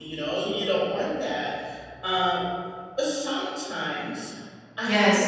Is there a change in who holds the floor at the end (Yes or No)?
No